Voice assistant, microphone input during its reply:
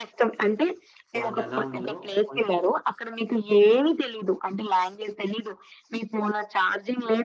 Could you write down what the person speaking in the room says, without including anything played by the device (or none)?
వాళ్ళేలా ఉన్నారో కొంచేం